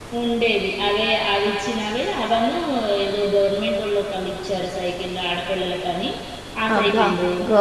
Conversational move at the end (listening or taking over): taking over